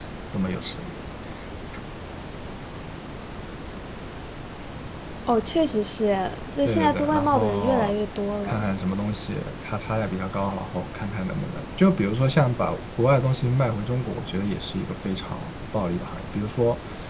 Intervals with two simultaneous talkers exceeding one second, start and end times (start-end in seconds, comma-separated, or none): 6.6-7.9